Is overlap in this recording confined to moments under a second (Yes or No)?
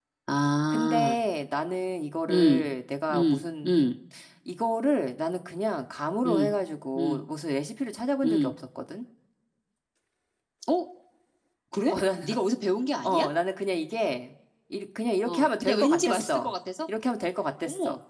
No